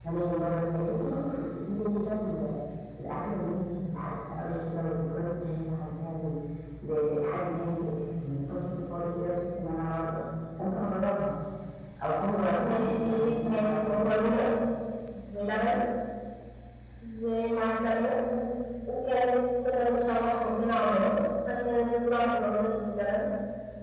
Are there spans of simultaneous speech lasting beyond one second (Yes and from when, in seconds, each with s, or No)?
Yes, from 12.6 s